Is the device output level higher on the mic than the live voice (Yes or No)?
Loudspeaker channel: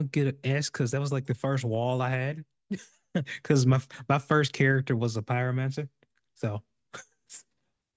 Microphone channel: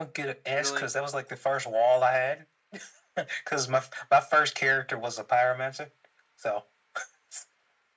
Yes